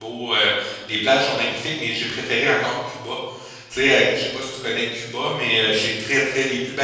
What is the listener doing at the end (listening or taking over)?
listening